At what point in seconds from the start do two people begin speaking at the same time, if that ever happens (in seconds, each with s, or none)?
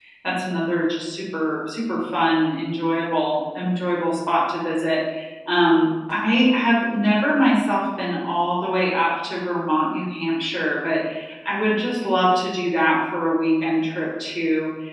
none